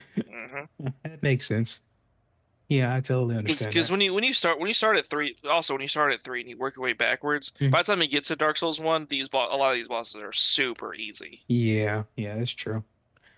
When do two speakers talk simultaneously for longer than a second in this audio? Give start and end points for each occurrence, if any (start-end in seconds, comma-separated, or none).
none